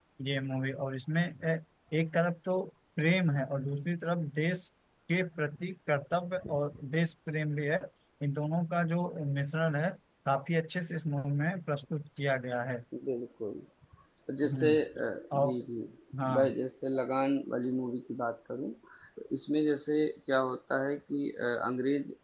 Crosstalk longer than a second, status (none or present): none